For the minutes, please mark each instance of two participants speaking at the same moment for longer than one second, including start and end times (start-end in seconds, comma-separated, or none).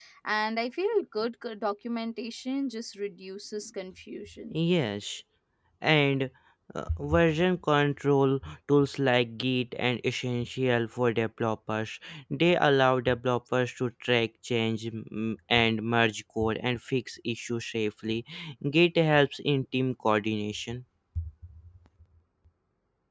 none